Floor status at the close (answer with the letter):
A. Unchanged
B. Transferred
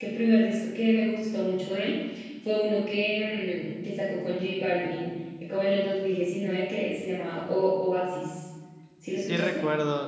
B